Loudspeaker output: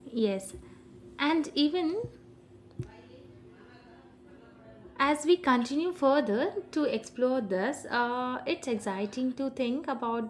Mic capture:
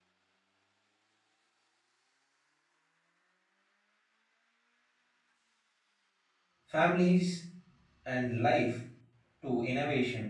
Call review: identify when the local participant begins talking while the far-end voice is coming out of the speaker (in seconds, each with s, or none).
6.7 s